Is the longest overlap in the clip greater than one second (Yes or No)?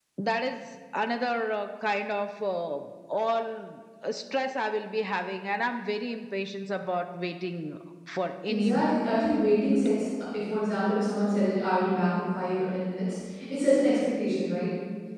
No